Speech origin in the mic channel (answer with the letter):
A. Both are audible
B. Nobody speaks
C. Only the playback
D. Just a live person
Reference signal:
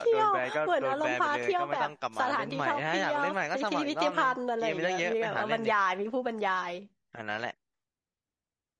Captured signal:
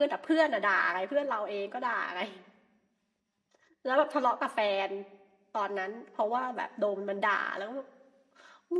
D